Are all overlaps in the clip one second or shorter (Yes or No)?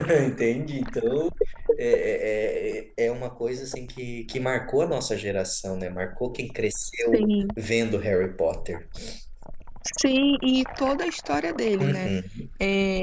Yes